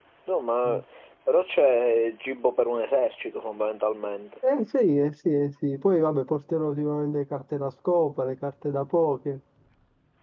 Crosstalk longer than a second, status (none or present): none